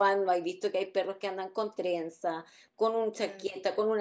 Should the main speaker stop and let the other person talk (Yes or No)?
No